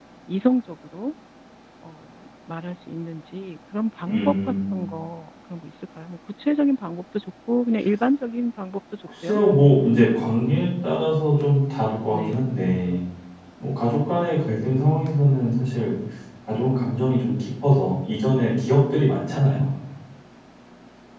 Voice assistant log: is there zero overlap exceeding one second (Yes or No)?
Yes